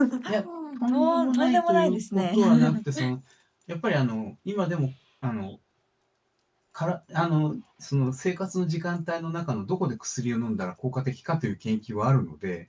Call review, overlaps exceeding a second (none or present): present